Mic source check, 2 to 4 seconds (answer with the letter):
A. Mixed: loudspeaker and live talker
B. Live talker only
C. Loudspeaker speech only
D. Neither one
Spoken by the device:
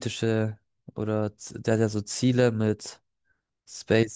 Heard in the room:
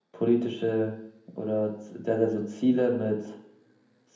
C